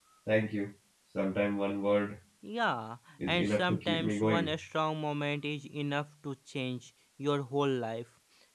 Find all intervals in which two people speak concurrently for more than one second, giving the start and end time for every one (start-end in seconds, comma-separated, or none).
3.3-4.5